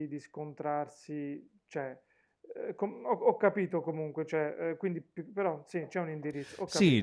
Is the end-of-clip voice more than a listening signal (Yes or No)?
Yes